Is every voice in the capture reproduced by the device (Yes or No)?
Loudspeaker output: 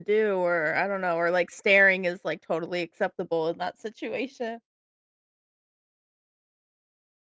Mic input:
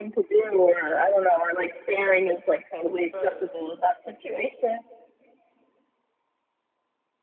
No